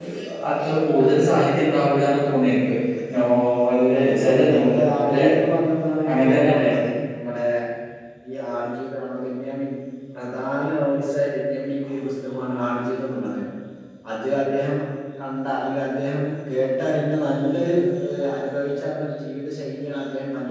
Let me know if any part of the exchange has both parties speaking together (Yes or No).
Yes